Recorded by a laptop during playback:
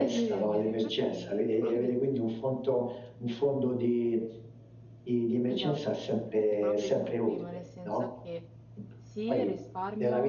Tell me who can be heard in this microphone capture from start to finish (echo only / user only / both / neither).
both